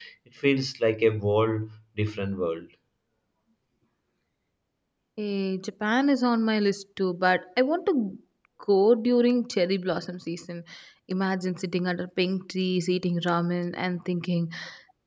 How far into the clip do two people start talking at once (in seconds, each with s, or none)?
none